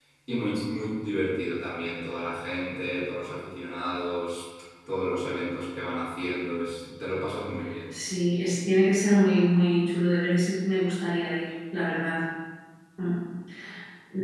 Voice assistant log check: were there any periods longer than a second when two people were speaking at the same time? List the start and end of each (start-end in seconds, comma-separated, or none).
none